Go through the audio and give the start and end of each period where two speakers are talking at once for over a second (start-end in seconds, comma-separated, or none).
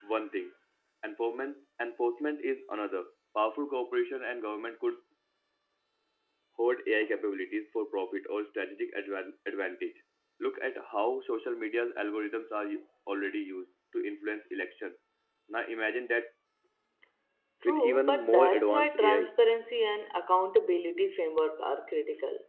17.6-19.3